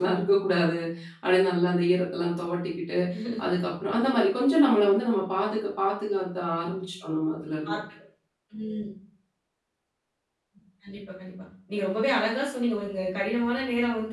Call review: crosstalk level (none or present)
none